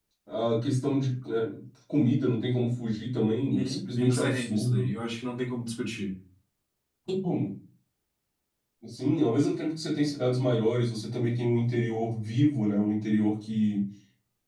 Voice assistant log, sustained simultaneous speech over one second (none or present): present